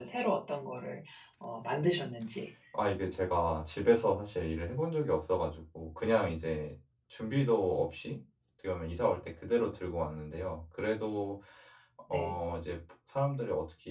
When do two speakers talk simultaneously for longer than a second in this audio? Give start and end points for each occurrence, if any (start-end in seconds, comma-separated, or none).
none